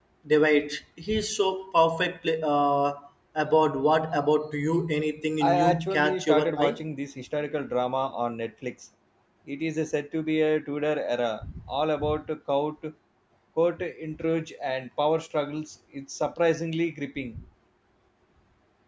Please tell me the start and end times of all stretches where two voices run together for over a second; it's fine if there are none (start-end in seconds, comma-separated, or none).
5.4-6.8